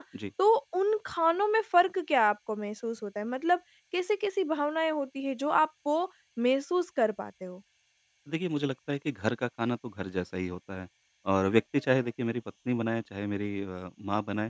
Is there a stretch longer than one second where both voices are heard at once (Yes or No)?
No